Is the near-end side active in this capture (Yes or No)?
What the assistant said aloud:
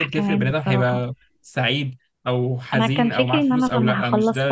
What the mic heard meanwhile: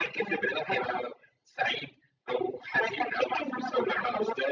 No